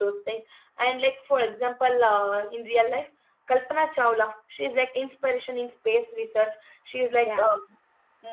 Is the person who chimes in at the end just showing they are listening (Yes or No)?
Yes